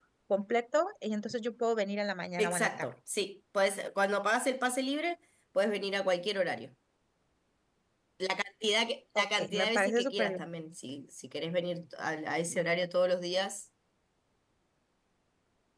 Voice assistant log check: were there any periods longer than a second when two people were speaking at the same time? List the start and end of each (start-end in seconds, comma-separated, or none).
9.2-10.4